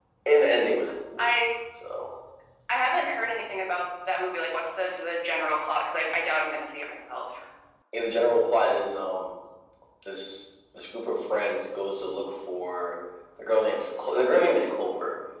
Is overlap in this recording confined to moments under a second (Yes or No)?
Yes